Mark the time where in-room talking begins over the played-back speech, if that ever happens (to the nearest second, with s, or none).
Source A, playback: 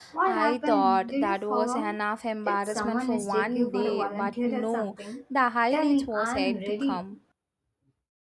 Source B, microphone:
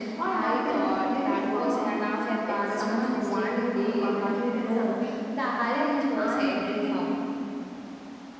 none